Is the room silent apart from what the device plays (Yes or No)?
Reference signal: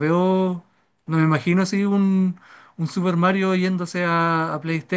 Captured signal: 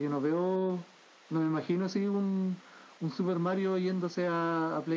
Yes